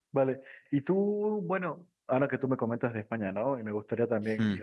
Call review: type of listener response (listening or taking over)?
listening